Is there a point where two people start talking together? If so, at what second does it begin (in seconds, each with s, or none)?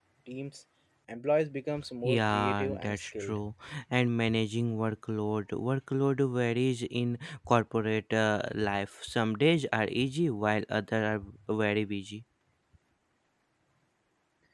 2.0 s